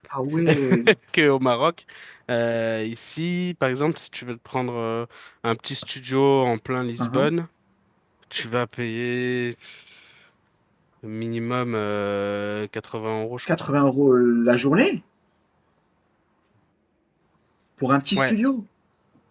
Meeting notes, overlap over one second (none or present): none